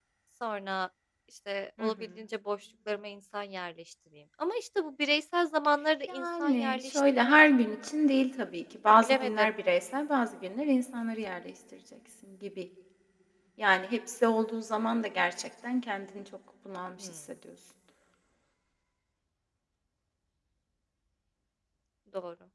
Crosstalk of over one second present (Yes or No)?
Yes